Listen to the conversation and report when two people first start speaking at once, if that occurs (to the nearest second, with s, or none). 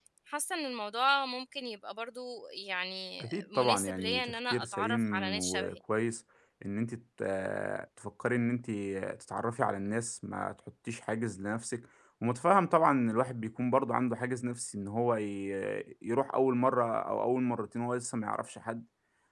3 s